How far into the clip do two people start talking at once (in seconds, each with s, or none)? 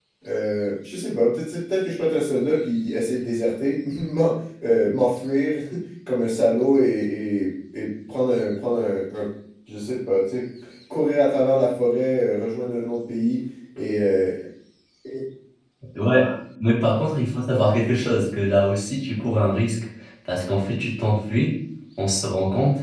none